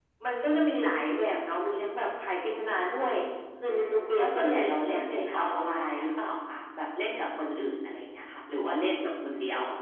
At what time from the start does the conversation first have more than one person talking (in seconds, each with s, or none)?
3.7 s